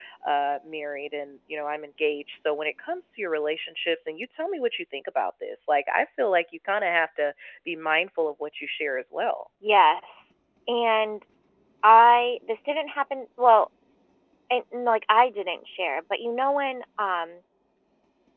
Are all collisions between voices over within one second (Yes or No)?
Yes